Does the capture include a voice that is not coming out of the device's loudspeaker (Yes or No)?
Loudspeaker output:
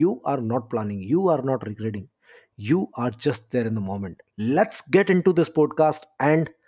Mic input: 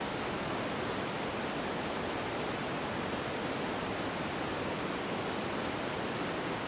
No